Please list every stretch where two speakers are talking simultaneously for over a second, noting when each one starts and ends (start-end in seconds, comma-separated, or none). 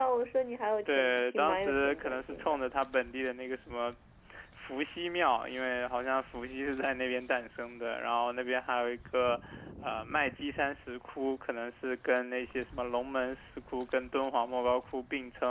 0.9-2.6